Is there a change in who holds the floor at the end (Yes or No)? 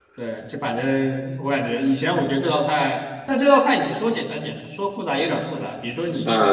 No